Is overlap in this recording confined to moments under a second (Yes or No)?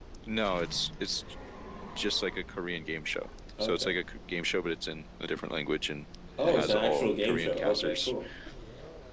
No